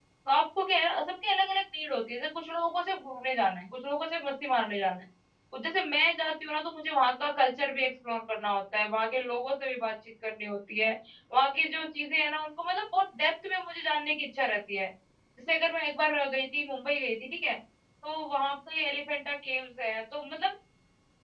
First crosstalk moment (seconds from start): none

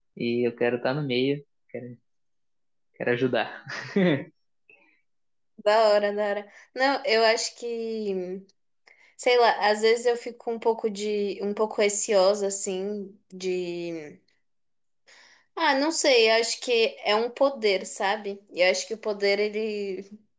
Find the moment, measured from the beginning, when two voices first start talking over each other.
none

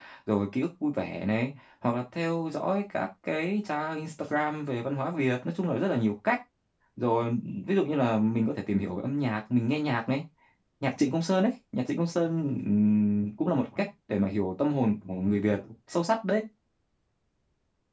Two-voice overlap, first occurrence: none

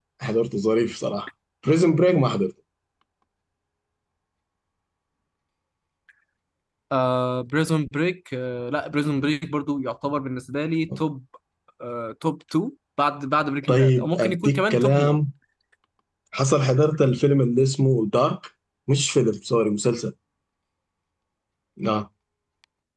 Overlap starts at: 13.7 s

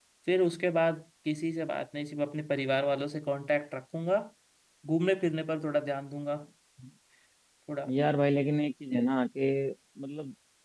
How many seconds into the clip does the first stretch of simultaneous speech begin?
none

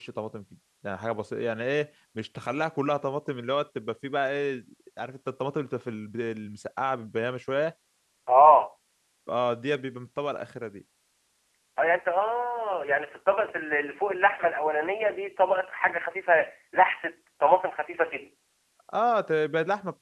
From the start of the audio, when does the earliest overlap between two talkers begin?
none

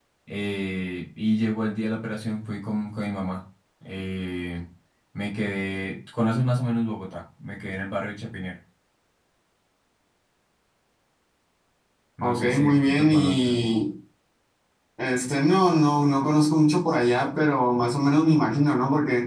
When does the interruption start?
12.2 s

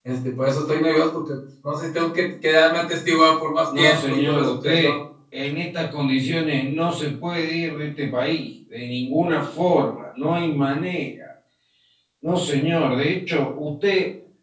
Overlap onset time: 3.7 s

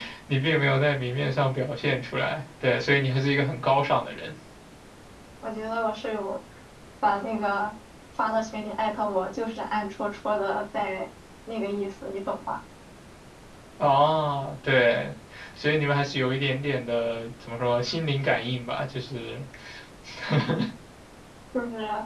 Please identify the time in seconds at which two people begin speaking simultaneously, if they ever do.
none

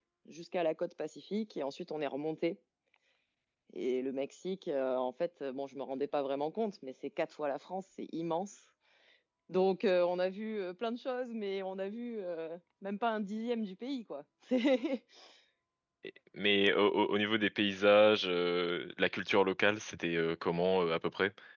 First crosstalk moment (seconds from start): none

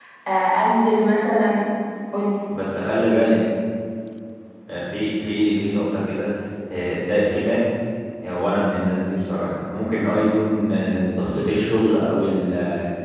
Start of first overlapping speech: none

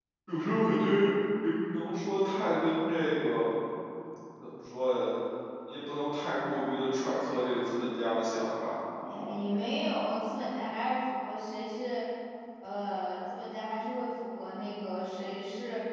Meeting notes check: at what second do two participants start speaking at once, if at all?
none

